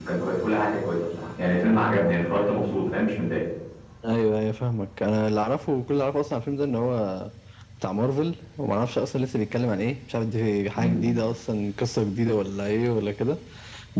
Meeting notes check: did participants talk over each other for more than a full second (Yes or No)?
No